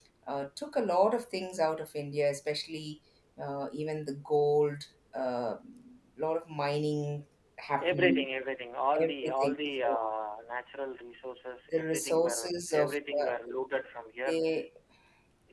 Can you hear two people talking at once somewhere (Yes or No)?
Yes